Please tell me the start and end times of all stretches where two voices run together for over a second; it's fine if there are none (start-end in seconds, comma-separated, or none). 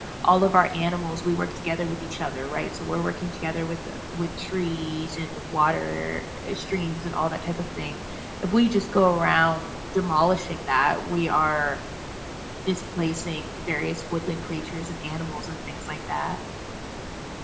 none